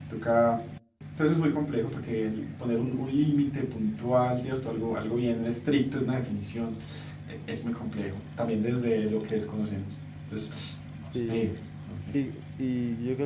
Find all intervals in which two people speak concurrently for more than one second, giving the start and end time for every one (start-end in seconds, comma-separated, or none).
none